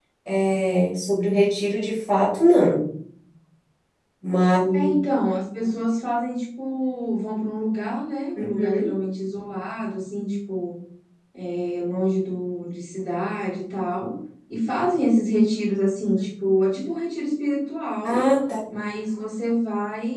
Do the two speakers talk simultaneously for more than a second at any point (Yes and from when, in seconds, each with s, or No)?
No